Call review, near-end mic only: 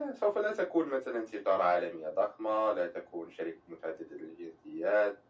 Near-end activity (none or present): none